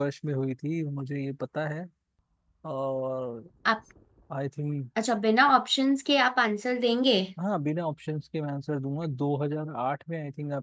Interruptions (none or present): none